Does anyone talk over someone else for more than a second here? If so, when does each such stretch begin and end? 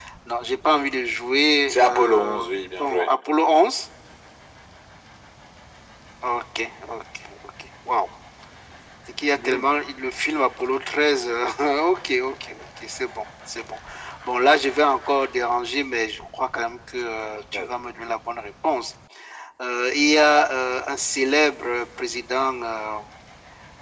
1.7-3.1

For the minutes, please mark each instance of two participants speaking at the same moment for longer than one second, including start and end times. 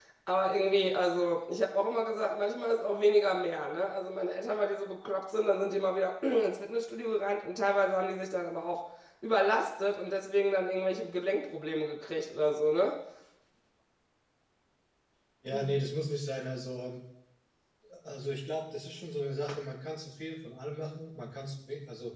none

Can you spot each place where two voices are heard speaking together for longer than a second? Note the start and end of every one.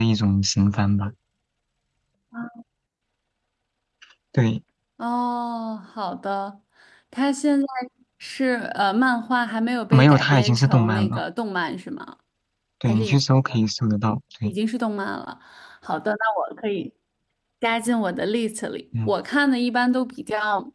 9.9-11.2

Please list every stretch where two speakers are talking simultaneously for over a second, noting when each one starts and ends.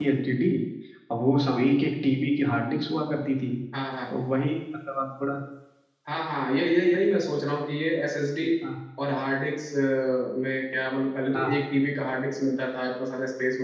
none

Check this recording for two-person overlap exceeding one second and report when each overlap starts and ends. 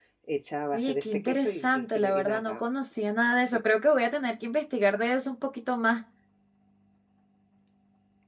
0.7-2.6

